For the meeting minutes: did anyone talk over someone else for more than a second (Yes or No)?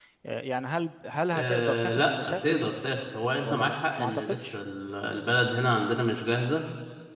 Yes